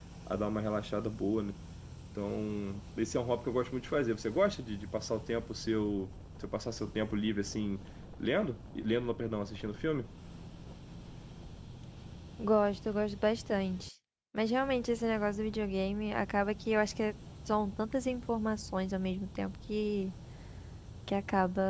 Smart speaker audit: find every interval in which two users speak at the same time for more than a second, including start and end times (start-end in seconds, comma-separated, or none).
none